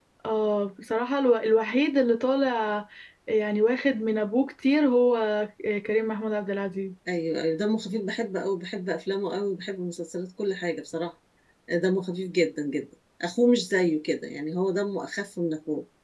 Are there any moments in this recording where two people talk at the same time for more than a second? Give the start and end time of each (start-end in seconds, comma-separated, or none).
none